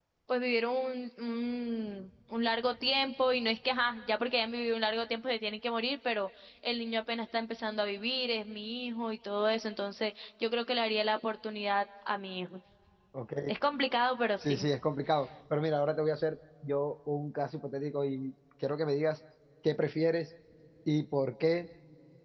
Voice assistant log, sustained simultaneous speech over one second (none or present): none